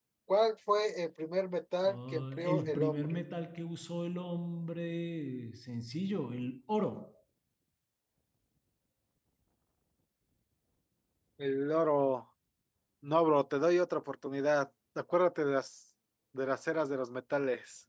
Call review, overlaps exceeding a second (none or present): present